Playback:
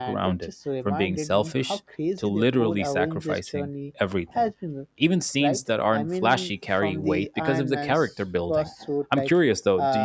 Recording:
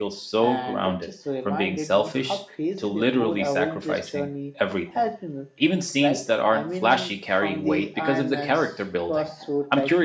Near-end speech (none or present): none